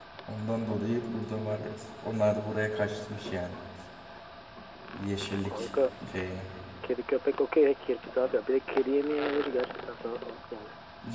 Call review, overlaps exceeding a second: none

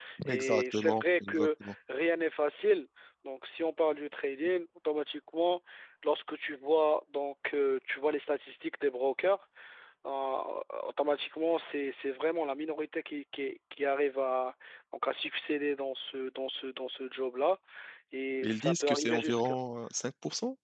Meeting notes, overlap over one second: present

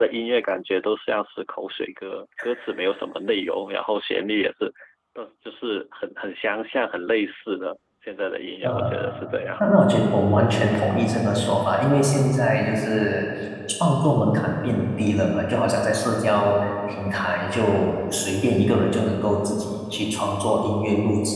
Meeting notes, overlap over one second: none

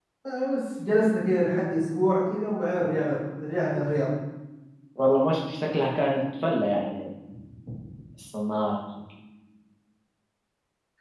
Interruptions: none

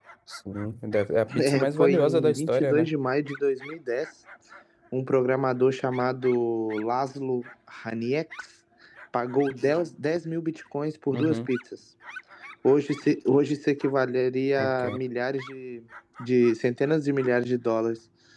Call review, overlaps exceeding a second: present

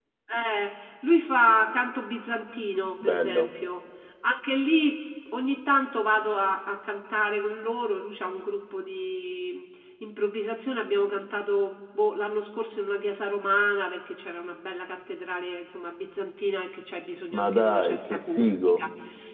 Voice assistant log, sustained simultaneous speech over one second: present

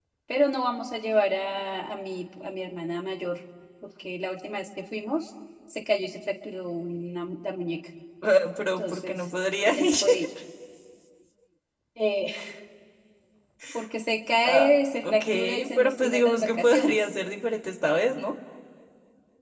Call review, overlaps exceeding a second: present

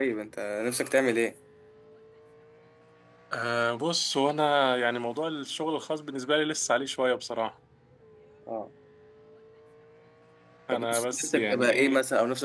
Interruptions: present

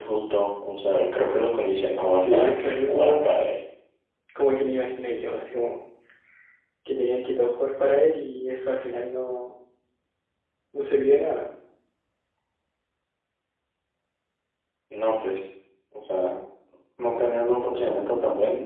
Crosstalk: present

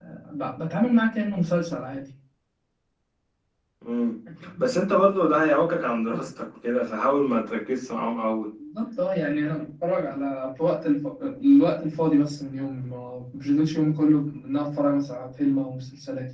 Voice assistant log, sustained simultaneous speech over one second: none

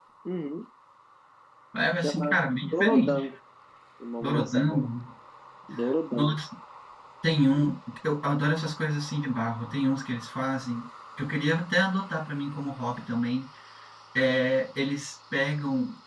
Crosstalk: present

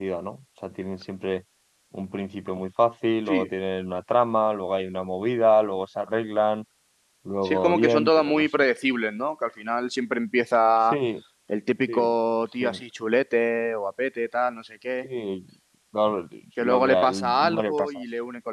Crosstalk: present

